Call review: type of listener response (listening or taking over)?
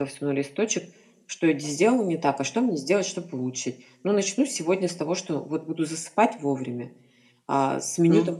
listening